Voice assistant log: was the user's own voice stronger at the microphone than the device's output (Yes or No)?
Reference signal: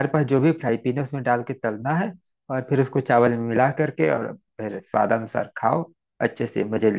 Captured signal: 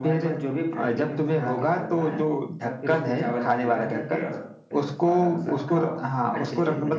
Yes